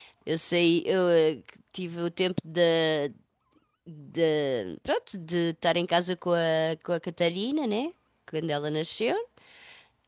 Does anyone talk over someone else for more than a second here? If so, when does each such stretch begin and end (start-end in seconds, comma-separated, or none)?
none